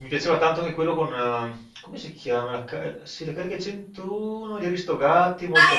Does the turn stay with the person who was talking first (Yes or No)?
No